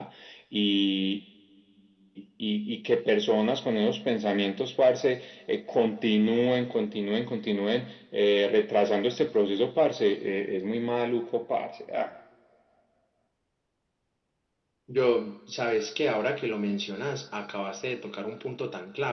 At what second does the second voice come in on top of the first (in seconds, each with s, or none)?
none